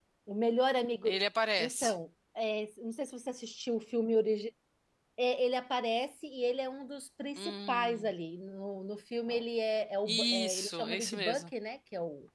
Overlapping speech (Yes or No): Yes